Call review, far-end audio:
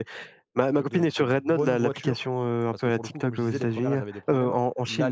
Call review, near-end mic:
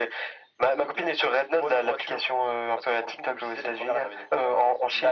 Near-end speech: none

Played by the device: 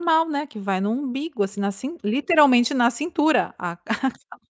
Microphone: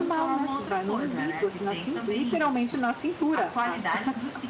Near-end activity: present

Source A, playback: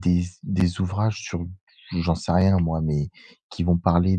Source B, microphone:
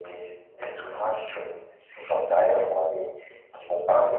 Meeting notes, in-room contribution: none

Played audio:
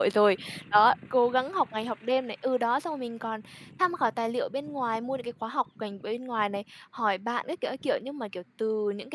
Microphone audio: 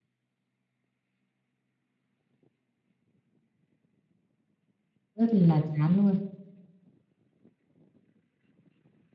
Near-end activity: present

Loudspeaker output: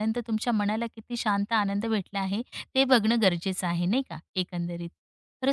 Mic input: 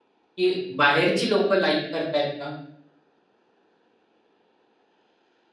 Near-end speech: present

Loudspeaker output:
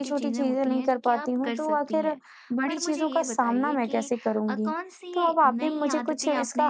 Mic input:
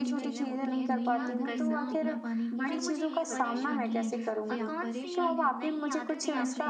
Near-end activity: present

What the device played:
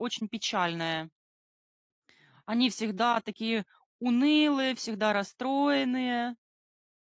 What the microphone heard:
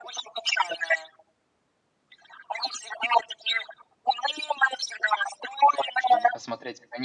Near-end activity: present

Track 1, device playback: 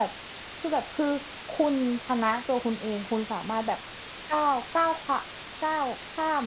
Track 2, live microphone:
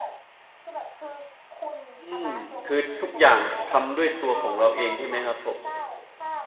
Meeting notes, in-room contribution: present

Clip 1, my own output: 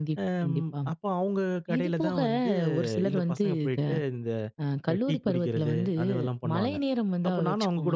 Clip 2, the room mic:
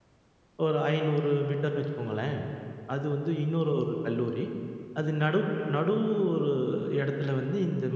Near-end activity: present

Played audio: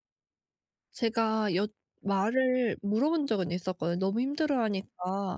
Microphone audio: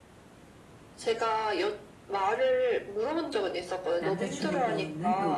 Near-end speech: present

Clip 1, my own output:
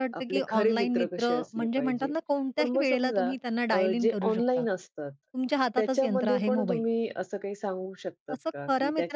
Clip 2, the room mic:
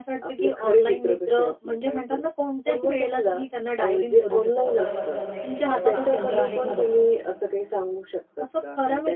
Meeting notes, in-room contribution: present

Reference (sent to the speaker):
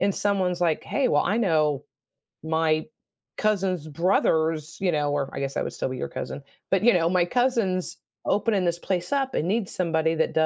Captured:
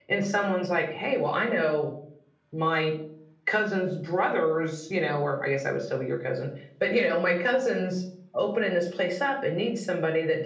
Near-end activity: none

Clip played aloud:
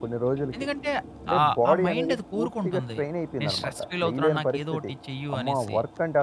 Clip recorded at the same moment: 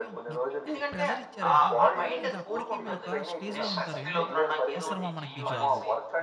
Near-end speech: present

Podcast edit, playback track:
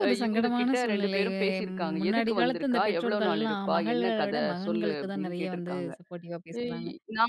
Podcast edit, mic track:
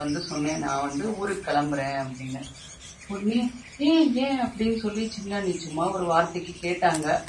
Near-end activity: present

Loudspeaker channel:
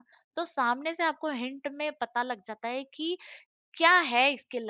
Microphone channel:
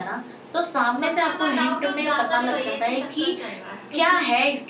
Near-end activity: present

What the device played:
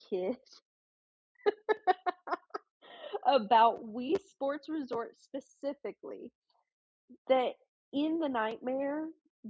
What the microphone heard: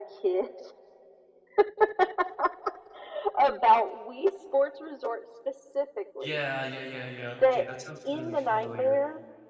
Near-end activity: present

